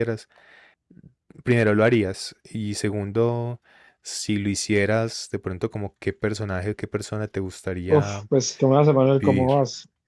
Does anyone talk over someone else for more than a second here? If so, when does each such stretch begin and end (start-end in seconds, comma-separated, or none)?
none